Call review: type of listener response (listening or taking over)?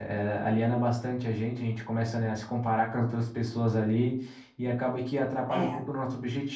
listening